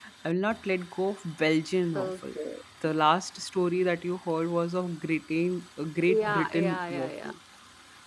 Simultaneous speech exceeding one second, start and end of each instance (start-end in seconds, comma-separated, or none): 6.1-7.3